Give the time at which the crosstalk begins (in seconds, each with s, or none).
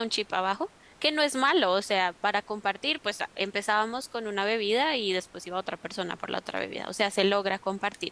none